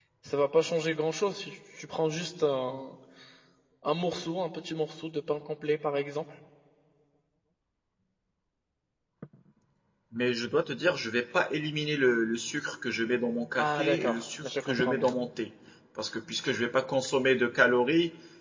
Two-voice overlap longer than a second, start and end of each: 13.6-15.2

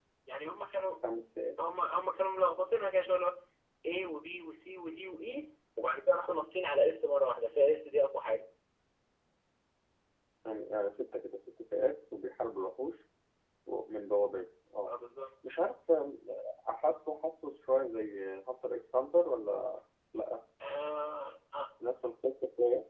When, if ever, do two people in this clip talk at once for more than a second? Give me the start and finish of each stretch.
none

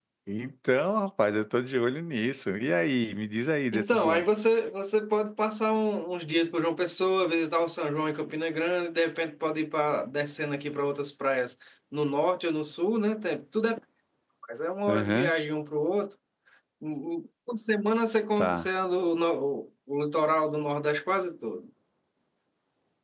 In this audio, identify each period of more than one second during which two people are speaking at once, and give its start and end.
none

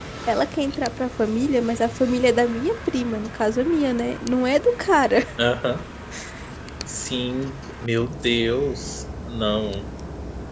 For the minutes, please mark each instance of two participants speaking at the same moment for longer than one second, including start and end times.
none

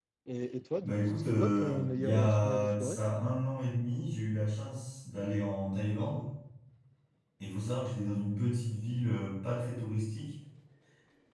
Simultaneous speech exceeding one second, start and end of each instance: 0.8-3.0

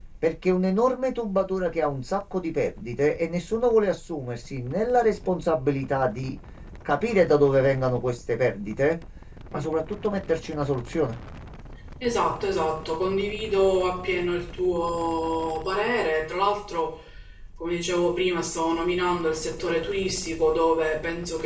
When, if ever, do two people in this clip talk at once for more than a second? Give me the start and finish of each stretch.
none

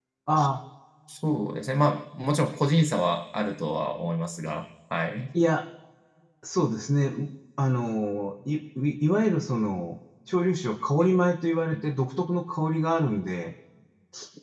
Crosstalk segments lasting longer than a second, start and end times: none

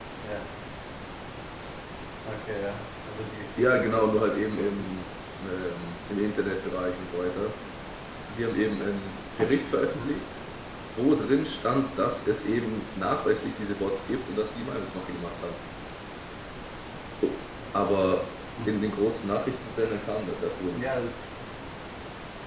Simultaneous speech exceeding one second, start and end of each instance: 3.6-4.9

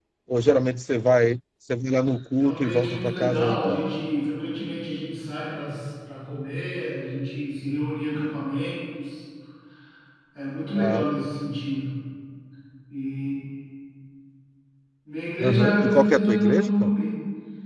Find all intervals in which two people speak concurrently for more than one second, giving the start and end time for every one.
2.4-3.9, 15.4-16.9

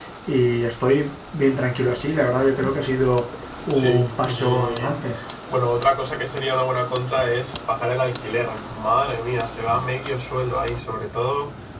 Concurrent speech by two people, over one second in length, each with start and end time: 3.7-4.9

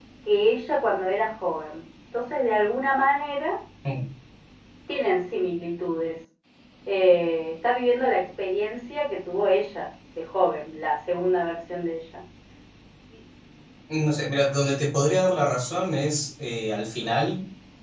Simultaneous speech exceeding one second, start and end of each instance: none

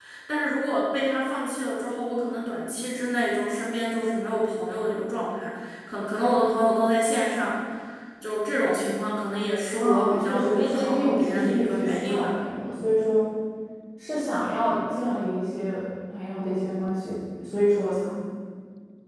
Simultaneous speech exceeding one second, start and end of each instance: 9.8-12.3

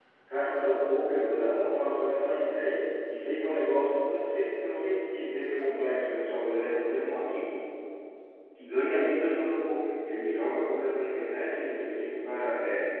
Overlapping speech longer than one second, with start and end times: none

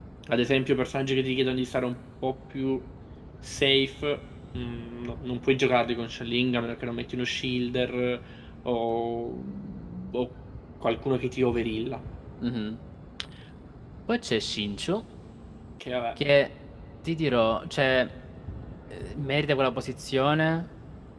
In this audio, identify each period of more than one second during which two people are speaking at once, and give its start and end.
none

